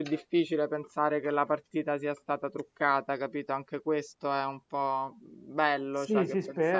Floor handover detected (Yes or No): Yes